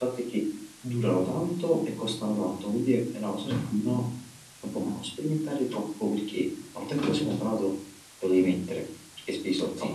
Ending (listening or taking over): listening